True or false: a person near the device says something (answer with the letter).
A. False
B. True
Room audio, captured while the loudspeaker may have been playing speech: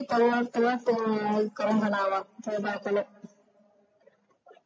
A